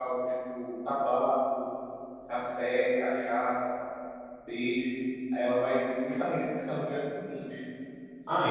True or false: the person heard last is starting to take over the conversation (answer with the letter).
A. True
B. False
B